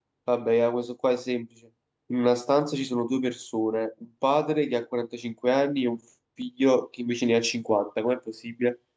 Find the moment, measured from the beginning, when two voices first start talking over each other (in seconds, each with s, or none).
none